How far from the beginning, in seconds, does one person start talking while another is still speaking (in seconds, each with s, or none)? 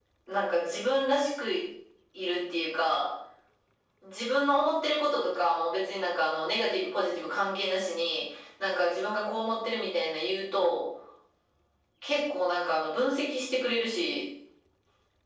none